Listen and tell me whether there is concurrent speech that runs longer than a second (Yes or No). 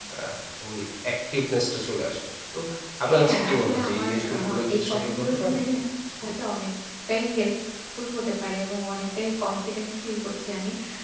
Yes